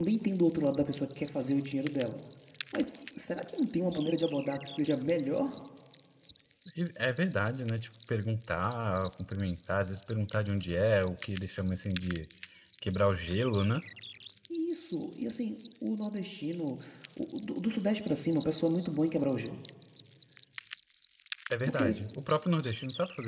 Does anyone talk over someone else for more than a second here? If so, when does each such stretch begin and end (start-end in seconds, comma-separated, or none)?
none